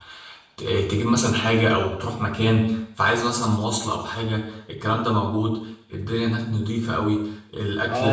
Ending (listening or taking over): taking over